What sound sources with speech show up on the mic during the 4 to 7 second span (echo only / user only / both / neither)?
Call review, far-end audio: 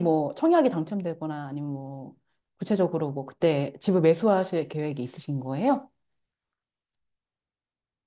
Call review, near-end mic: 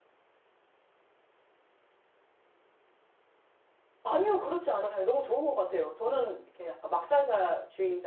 user only